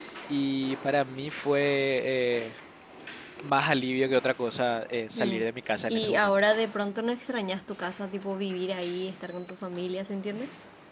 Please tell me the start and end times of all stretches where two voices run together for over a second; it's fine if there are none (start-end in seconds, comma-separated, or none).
none